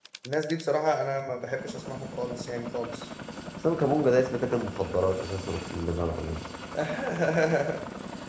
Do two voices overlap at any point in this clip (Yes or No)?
No